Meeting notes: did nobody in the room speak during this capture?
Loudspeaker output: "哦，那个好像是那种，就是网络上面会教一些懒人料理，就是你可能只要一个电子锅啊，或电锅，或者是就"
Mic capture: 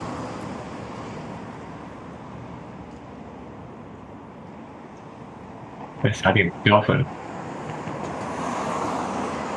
No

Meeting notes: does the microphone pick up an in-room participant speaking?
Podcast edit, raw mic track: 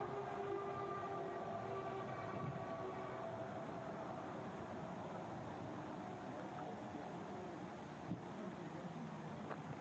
No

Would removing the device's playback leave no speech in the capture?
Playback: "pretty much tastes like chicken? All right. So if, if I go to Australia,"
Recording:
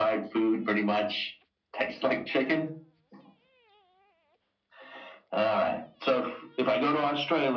Yes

